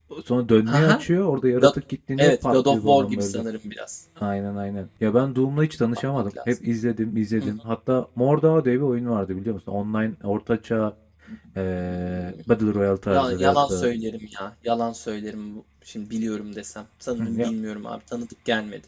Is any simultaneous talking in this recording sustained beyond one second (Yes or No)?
Yes